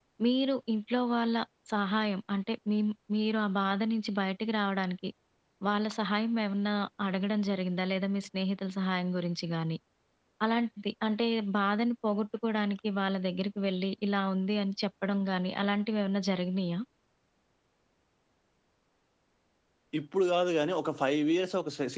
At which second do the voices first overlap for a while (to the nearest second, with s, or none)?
none